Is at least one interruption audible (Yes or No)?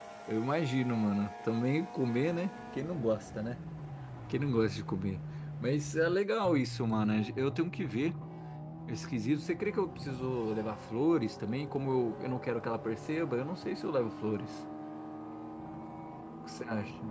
No